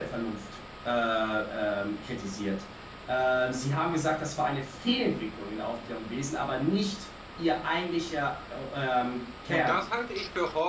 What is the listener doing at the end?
taking over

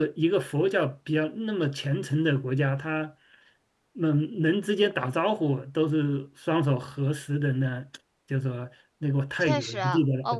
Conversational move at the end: taking over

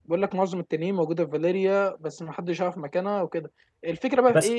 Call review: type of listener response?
listening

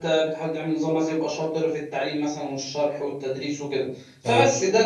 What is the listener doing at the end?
listening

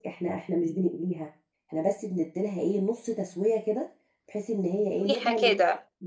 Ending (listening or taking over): listening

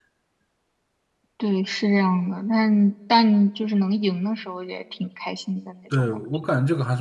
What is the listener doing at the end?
taking over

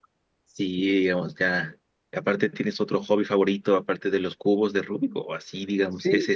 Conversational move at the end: taking over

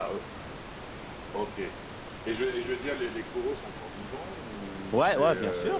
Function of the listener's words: taking over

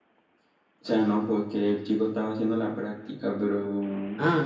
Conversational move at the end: taking over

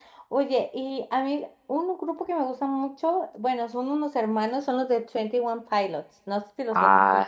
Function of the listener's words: taking over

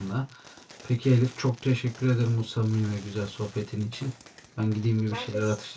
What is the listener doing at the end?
listening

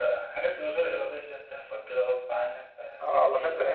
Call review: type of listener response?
taking over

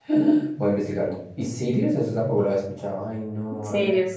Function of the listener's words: taking over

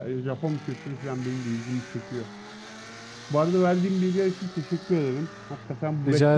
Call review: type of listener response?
listening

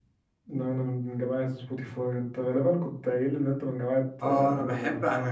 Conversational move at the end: taking over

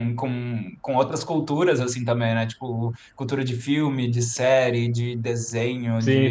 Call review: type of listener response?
taking over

